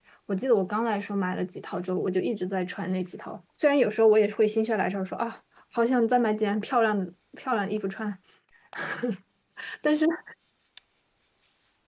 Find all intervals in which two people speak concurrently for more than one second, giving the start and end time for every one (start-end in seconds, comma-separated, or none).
none